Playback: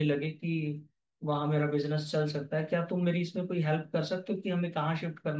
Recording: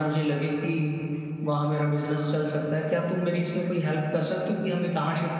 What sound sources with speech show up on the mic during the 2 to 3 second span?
echo only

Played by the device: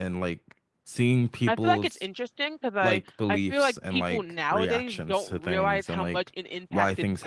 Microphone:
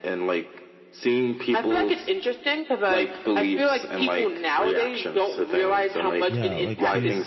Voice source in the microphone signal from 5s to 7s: both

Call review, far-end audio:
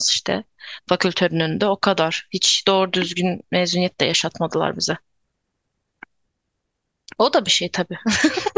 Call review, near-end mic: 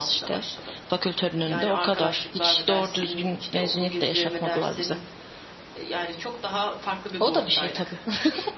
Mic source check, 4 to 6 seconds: both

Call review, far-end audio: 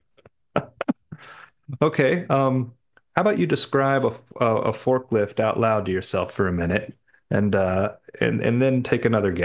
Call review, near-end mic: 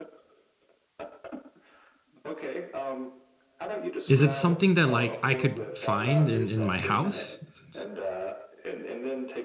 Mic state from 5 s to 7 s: both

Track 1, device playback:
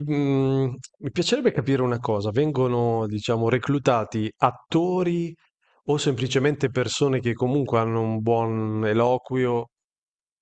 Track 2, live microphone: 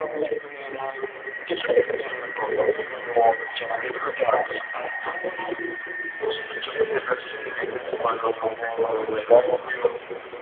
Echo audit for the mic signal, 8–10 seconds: echo only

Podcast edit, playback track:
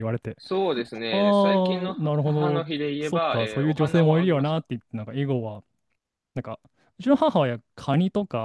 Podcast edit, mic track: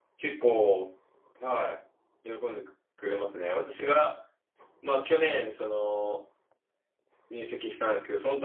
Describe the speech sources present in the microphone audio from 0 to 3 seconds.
user only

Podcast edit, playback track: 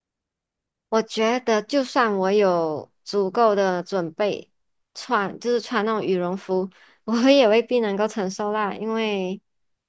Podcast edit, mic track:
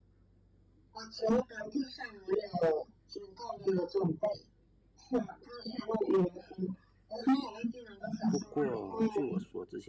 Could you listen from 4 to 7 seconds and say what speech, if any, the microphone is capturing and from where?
echo only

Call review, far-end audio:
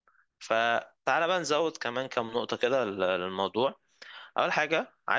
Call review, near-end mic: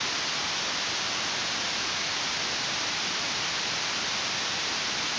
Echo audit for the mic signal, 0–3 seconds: neither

